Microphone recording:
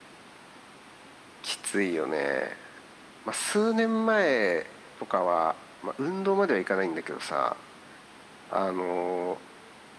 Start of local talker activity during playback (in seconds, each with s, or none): none